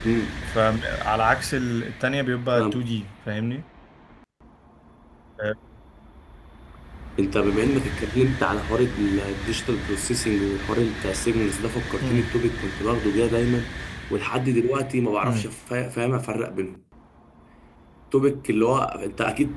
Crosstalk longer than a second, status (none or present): none